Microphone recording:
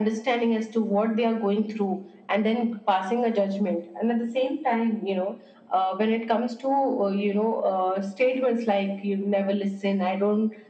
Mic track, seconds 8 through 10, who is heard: echo only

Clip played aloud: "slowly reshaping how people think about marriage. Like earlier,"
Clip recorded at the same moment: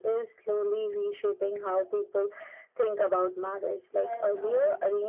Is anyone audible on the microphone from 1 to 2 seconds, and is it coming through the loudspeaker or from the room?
echo only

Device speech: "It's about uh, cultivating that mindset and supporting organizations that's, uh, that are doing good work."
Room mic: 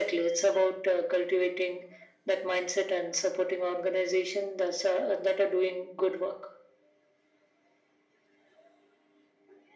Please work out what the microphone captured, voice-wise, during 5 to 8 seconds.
echo only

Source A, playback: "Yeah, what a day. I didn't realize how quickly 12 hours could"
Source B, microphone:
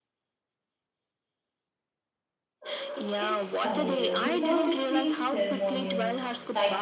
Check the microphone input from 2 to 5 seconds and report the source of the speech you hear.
both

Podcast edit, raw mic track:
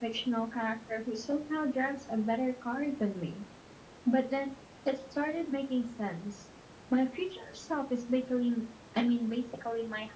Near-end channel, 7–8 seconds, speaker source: echo only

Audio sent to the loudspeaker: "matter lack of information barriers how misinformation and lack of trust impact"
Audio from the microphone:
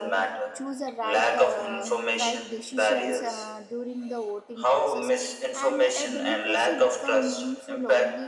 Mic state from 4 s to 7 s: both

